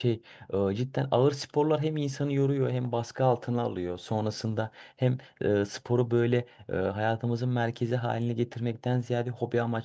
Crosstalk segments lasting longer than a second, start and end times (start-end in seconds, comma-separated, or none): none